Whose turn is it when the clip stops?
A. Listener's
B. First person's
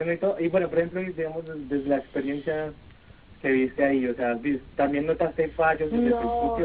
A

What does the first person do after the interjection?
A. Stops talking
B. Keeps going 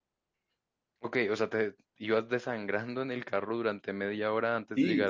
A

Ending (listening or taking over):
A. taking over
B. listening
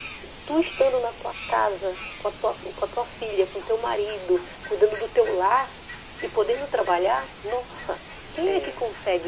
B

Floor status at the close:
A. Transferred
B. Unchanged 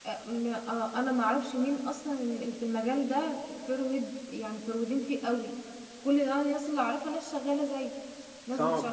A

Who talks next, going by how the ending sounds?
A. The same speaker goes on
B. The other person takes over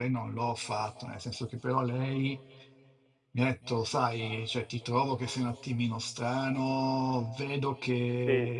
A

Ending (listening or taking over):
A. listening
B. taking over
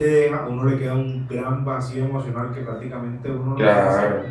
A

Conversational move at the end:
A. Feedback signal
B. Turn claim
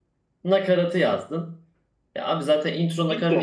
A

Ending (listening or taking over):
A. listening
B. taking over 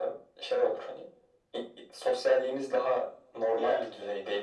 A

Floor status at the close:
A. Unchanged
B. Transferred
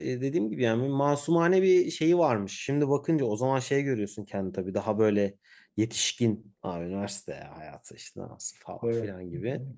A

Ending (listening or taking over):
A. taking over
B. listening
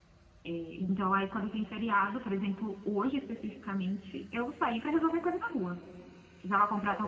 B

